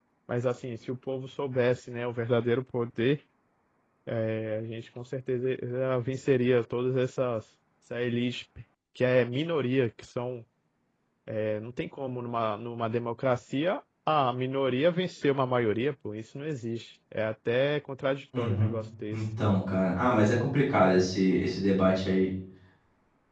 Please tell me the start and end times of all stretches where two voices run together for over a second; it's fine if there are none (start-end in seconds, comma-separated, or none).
none